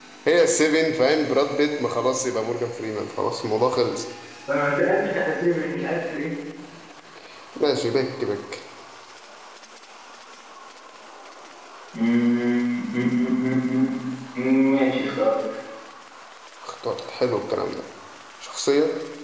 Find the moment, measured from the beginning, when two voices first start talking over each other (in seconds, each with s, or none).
none